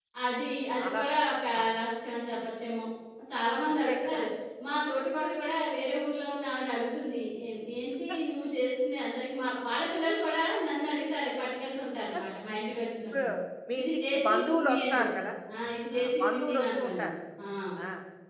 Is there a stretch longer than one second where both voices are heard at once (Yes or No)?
Yes